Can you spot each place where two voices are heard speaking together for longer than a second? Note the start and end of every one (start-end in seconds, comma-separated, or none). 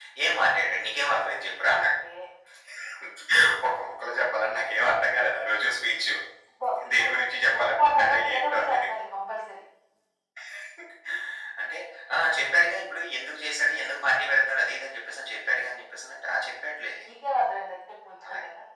6.9-8.8